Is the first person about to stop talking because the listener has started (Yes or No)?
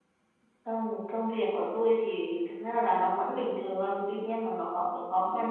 No